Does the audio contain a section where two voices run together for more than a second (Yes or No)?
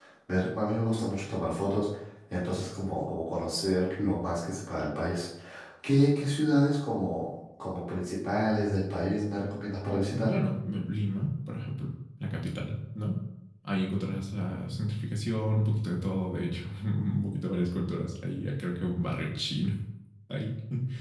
No